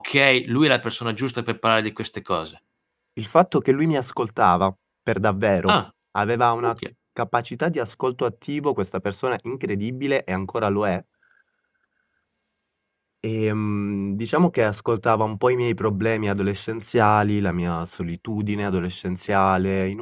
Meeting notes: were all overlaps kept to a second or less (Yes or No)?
Yes